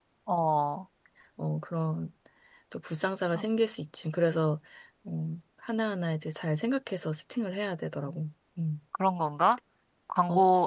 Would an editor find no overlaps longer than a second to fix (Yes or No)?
Yes